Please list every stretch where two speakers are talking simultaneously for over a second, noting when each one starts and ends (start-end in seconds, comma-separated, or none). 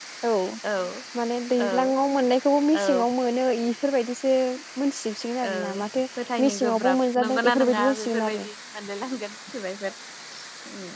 6.4-8.4